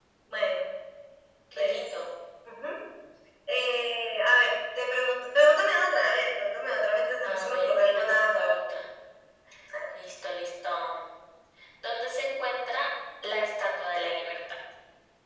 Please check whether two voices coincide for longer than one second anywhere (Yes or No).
Yes